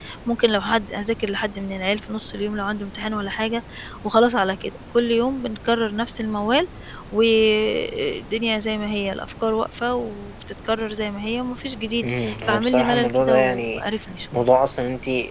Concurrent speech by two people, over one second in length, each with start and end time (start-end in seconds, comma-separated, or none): 12.0-13.8